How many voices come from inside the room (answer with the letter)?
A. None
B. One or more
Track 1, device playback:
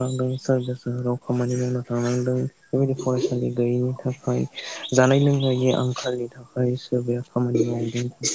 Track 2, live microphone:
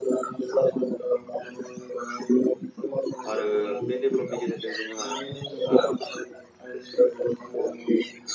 B